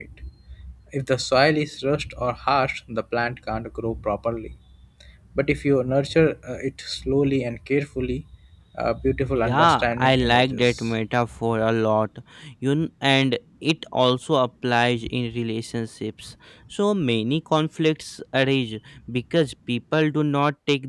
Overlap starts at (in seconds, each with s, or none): 9.3 s